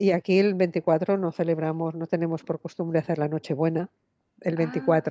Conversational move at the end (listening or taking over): listening